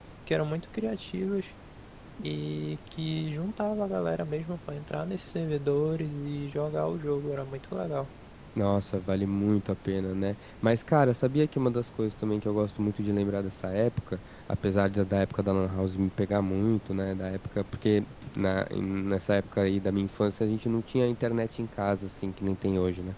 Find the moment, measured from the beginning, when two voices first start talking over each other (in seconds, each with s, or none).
none